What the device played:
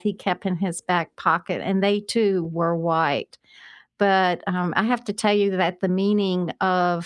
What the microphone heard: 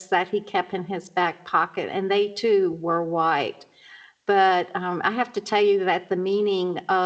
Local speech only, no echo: none

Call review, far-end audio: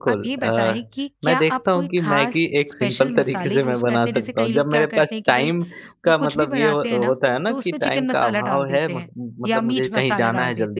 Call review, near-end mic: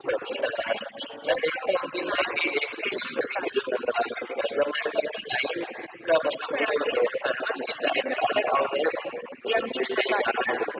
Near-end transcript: none

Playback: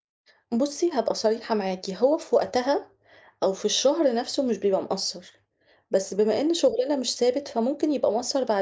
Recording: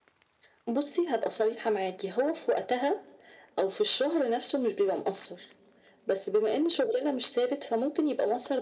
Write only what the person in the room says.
none

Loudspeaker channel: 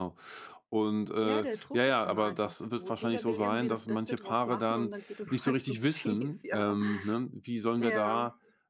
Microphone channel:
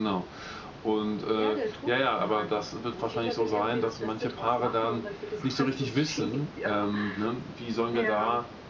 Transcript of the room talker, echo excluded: none

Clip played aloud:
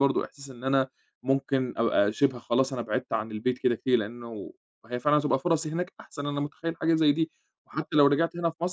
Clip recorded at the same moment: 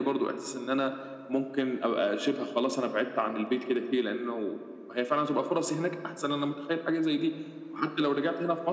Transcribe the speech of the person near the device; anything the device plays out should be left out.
none

